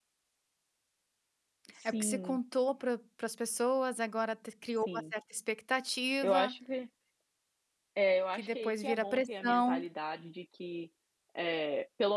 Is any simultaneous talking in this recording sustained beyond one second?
Yes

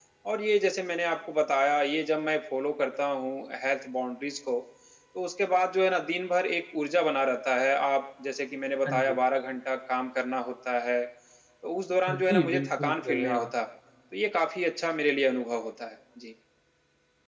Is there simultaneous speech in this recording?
Yes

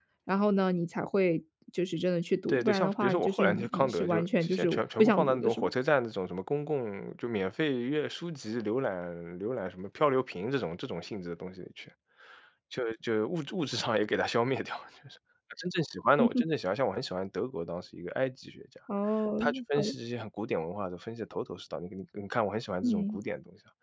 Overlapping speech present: Yes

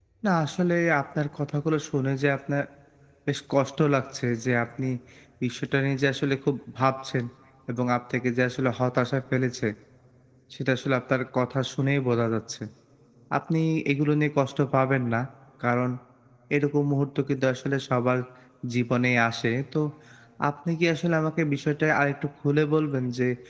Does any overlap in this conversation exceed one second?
No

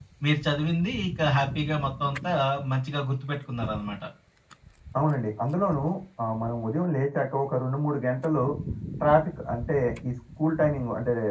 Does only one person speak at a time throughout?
Yes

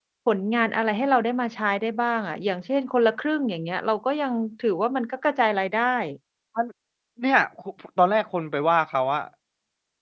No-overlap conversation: Yes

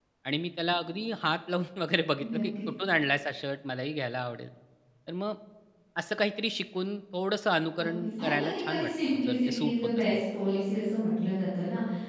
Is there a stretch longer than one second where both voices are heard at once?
Yes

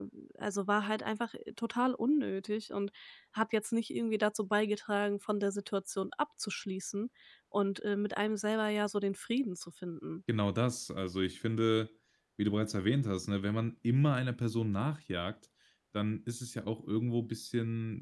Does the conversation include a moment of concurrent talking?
No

